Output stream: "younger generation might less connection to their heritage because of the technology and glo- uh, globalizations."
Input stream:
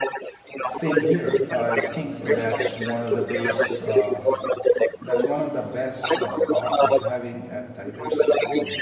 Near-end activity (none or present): present